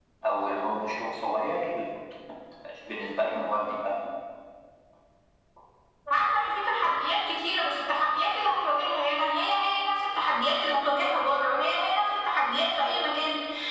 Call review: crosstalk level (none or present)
none